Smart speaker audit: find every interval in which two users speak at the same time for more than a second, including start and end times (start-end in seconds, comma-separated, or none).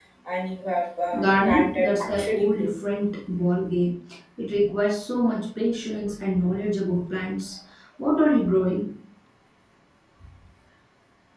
1.2-2.7